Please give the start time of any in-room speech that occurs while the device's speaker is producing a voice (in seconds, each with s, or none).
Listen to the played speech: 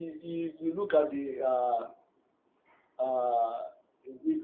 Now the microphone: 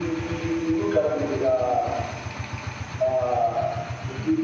none